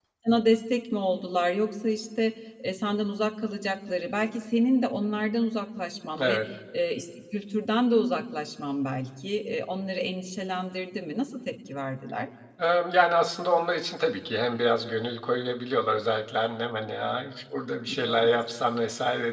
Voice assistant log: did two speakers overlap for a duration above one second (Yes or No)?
No